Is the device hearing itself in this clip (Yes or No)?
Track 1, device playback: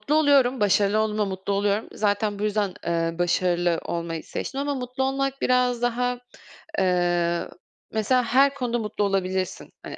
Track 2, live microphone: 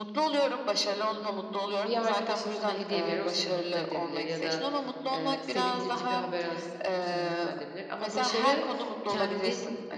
Yes